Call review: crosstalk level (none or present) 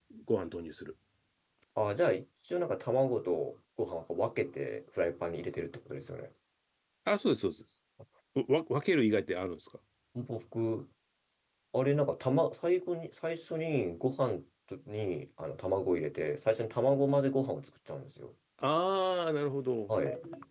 none